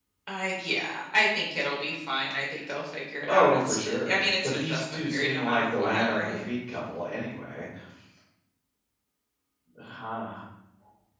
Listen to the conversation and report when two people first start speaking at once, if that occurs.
3 s

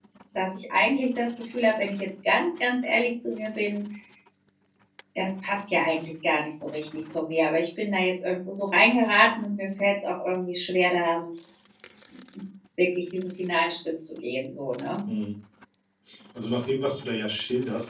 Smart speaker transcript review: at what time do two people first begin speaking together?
none

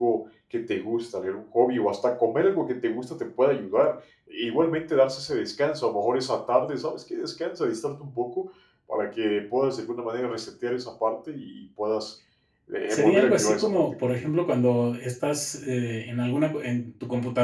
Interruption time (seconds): 13 s

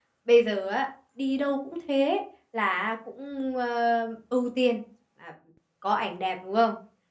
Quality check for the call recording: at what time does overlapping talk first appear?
none

